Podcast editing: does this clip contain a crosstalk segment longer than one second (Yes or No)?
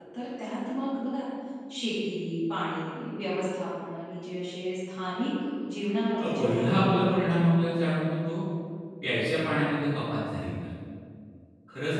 Yes